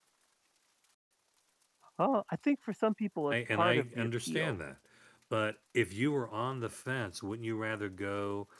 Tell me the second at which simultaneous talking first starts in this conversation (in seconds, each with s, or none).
3.3 s